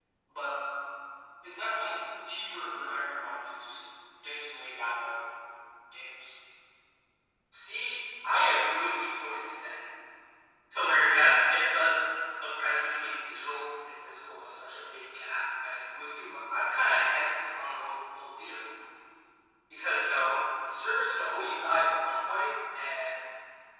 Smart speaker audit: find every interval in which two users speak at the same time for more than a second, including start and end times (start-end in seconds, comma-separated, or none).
none